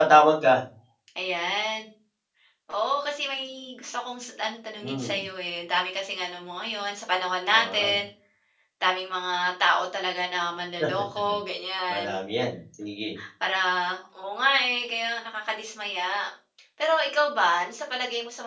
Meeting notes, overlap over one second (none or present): none